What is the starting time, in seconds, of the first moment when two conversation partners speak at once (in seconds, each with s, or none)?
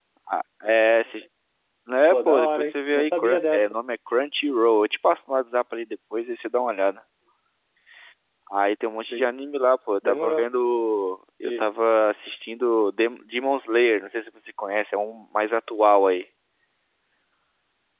2.1 s